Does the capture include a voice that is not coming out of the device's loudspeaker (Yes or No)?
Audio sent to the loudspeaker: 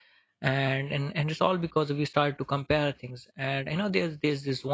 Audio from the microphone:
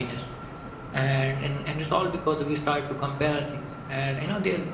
No